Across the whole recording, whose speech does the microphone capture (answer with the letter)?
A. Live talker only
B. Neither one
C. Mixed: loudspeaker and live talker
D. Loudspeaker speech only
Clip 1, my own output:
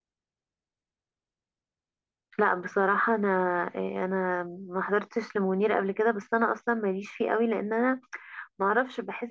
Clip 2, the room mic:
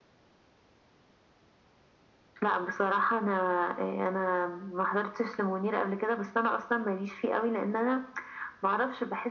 D